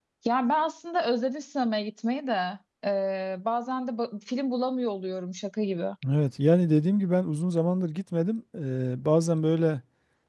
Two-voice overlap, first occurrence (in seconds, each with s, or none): none